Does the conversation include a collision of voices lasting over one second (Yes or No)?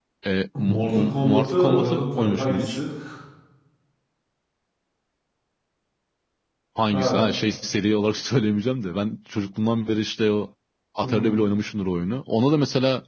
Yes